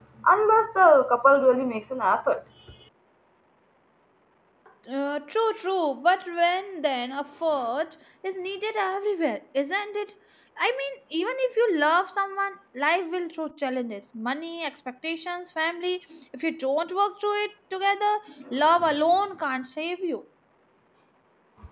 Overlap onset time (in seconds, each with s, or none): none